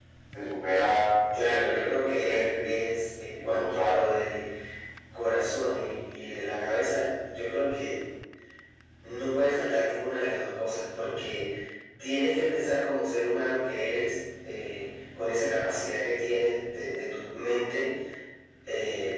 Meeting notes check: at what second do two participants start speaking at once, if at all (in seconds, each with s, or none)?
1.4 s